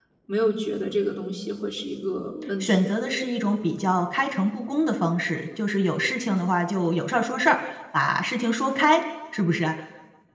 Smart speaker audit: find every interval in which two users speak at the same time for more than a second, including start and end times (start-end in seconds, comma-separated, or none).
none